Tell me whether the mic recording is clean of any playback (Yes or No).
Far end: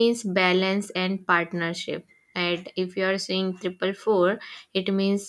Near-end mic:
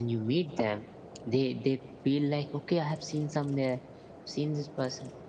Yes